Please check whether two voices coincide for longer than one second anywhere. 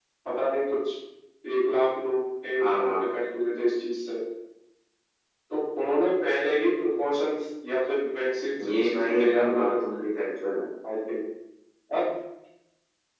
Yes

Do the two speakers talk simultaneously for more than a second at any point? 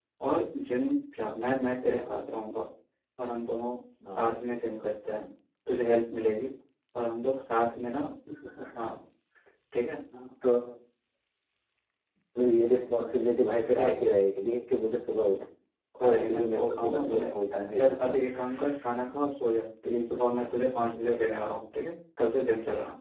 Yes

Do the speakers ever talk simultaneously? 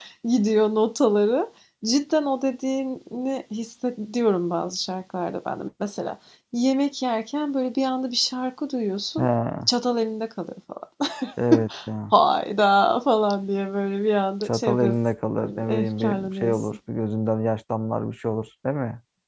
Yes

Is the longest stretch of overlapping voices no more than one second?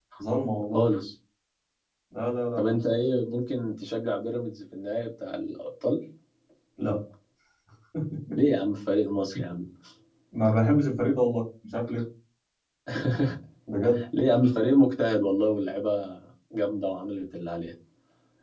Yes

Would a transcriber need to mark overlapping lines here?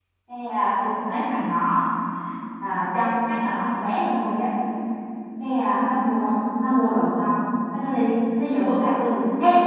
No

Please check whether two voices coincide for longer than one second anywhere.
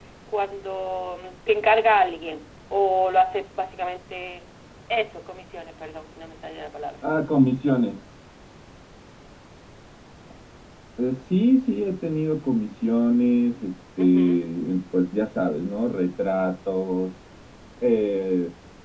No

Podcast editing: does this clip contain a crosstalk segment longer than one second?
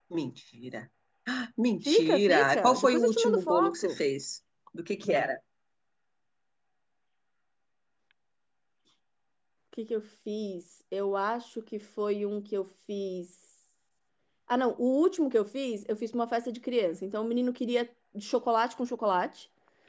Yes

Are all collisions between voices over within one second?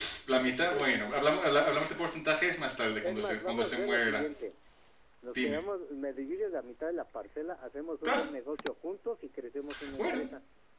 No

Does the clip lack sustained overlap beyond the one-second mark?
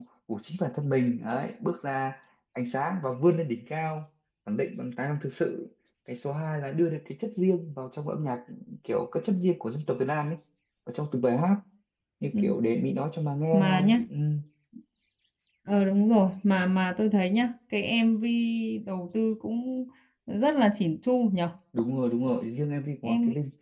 Yes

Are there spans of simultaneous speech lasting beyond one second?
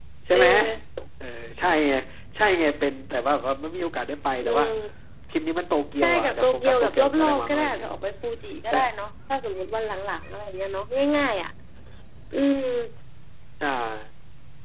Yes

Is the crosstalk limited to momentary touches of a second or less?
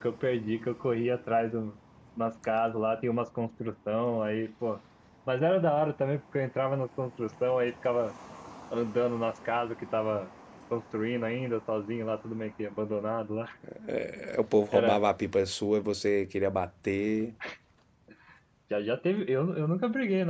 Yes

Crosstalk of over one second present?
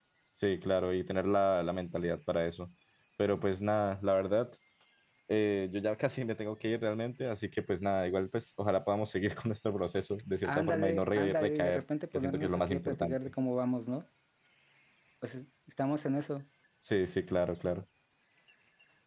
Yes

